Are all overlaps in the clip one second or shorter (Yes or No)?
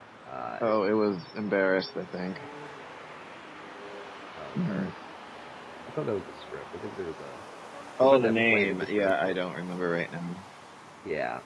No